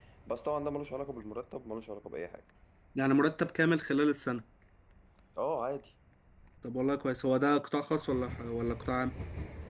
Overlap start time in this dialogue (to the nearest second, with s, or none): none